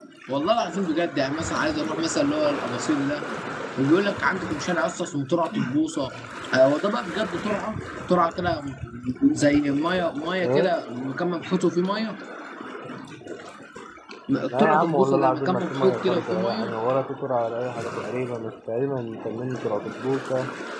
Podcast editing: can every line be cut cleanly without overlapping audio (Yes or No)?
No